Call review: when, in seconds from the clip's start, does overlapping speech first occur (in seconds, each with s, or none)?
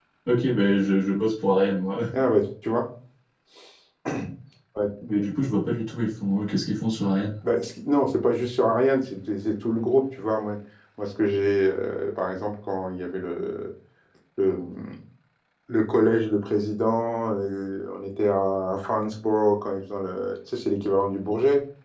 none